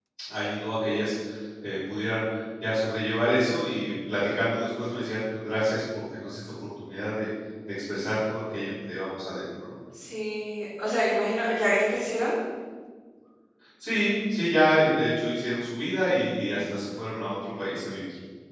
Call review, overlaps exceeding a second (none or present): none